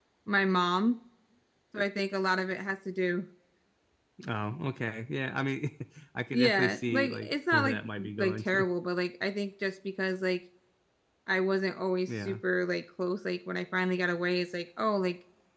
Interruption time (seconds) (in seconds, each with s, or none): 6.3 s